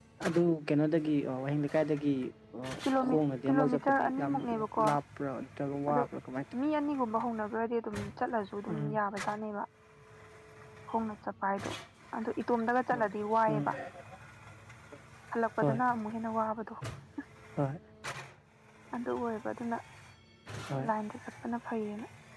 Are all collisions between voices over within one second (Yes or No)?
No